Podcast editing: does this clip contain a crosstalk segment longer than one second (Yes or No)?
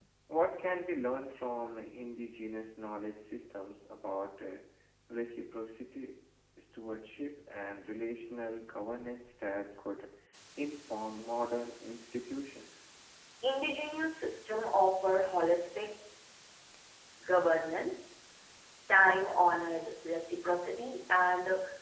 No